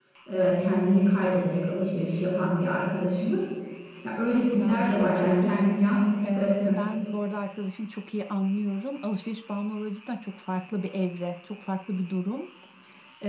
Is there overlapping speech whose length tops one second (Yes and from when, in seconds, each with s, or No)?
Yes, from 4.5 s